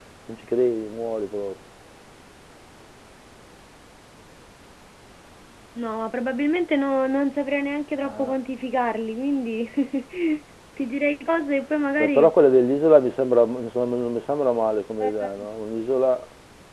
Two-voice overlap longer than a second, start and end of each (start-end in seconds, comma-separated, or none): none